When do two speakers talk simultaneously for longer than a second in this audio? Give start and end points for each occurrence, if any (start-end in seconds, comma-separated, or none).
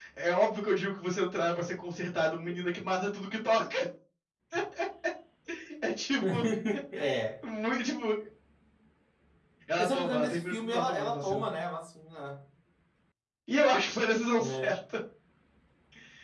9.8-11.4